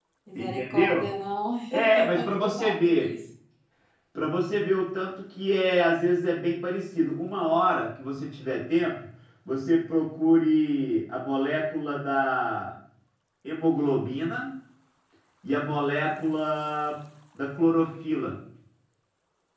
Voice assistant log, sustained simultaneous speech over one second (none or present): present